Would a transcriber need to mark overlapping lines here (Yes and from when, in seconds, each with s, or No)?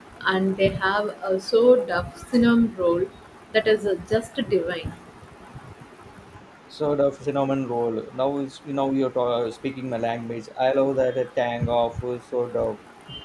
No